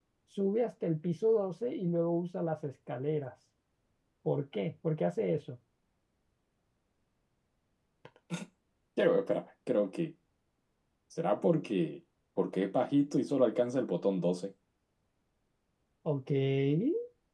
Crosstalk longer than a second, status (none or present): none